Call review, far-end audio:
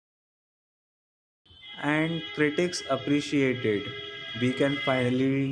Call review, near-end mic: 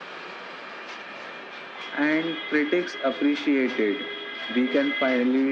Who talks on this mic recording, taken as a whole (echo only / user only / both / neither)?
echo only